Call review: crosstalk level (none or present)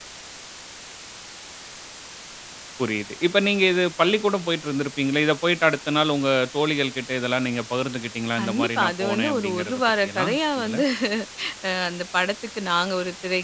present